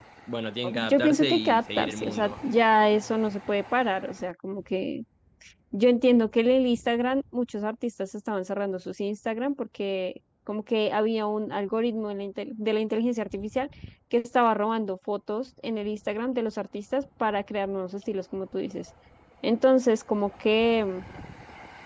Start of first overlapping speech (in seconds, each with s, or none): 0.7 s